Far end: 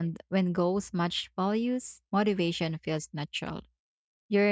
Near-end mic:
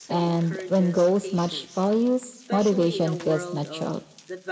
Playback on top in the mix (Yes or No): Yes